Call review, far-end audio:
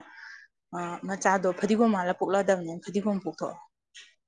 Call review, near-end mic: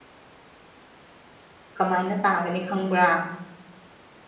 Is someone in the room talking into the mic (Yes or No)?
Yes